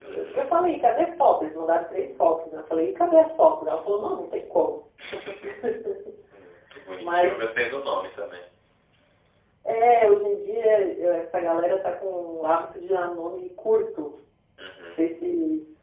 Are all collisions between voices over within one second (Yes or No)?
Yes